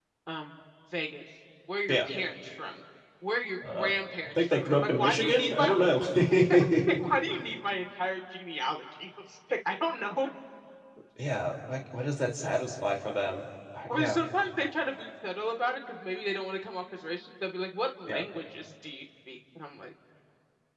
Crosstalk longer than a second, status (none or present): present